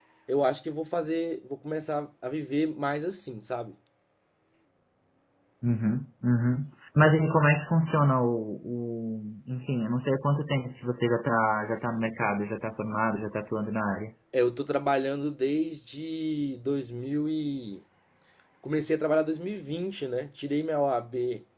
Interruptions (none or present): none